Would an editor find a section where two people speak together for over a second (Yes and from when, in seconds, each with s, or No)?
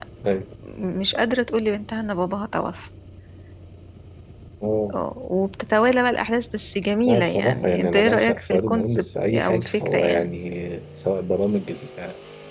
Yes, from 7.0 s